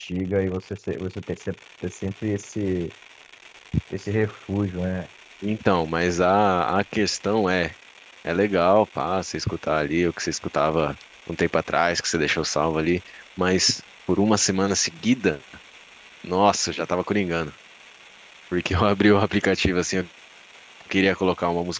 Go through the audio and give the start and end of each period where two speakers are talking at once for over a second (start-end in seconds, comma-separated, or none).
none